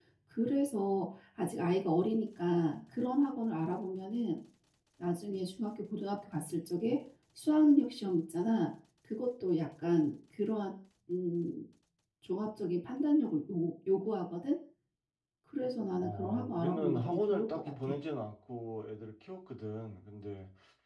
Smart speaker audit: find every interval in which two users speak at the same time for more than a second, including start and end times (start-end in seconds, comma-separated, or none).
16.0-17.9